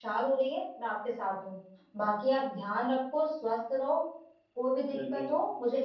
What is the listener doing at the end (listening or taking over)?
listening